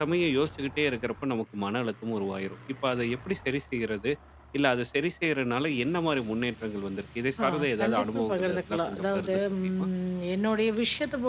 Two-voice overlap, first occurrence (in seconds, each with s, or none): 7.4 s